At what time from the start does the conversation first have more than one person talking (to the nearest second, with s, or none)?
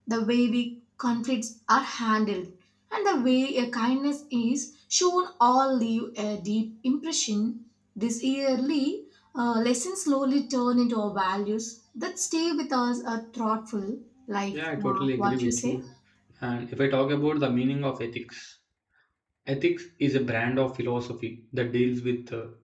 15 s